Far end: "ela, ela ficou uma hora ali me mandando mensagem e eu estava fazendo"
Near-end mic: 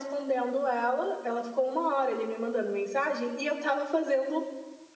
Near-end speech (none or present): none